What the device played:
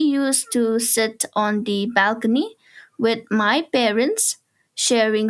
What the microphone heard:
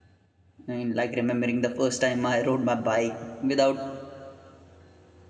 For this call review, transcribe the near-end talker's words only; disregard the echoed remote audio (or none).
I mean, like remembering the first time i rode my bike without